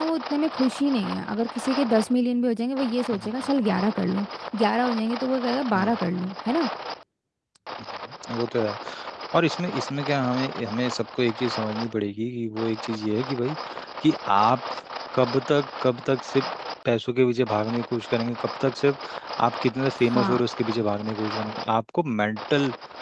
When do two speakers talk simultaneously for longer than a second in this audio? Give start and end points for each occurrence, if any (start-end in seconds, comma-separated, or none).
none